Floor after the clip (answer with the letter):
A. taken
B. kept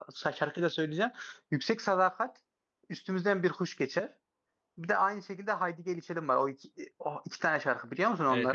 A